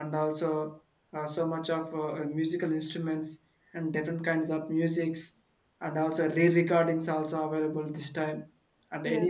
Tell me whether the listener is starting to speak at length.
No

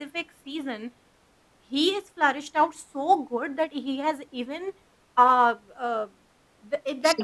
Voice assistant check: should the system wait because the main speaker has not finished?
Yes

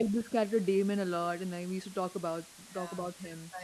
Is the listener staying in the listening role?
No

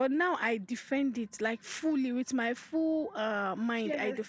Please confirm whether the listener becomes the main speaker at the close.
No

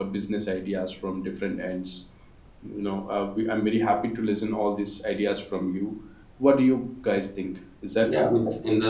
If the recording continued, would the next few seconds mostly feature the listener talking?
Yes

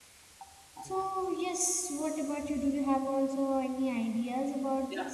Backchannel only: No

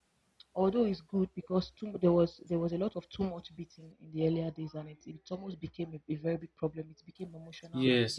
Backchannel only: No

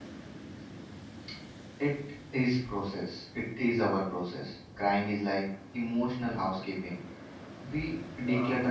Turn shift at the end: Yes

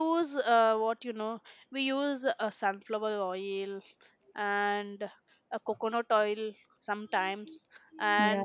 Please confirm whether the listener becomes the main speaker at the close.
No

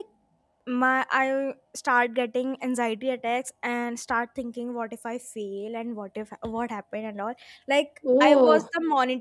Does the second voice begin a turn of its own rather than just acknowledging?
No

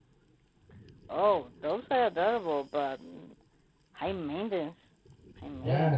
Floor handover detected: Yes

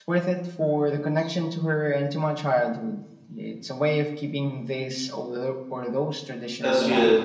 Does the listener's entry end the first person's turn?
Yes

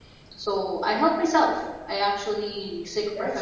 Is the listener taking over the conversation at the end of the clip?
No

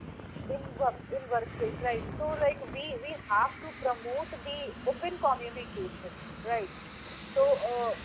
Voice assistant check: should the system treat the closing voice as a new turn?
No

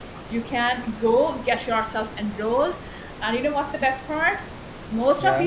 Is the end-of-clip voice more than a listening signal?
No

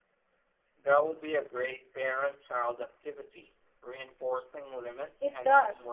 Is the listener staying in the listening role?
No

